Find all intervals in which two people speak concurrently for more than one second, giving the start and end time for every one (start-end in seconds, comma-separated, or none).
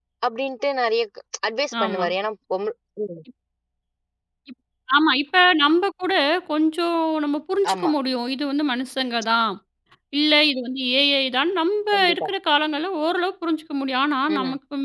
none